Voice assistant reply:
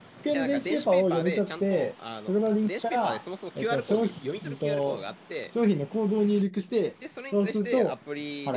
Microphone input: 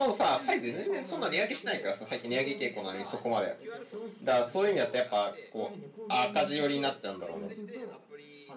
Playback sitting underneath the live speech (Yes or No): Yes